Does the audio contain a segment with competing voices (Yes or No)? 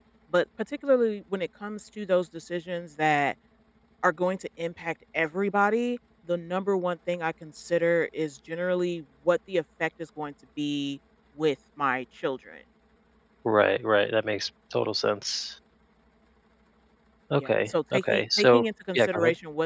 Yes